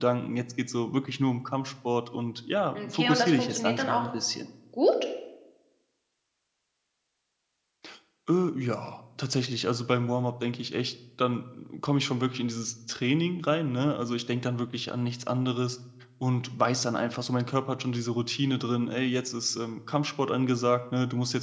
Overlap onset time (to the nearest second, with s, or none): 3 s